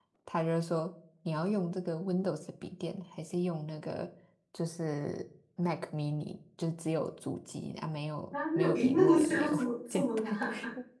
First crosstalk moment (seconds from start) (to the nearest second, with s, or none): 8 s